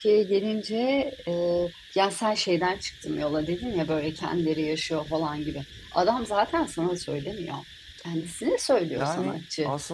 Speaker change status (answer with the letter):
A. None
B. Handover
B